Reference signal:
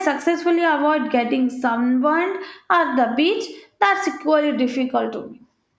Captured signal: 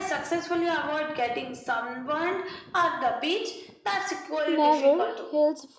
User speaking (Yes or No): Yes